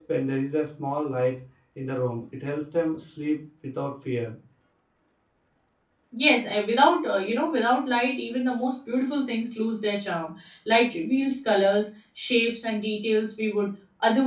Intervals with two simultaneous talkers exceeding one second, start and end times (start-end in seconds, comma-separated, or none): none